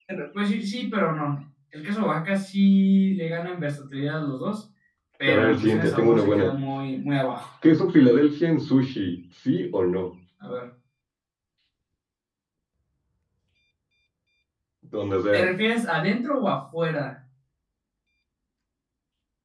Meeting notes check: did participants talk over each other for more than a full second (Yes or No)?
Yes